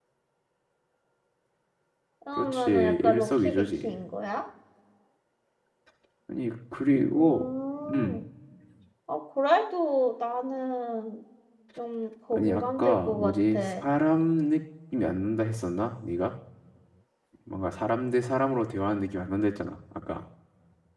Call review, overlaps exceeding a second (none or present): present